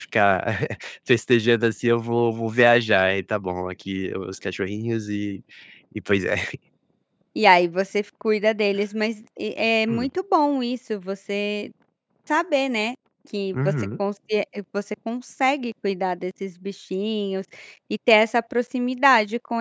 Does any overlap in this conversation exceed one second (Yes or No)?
No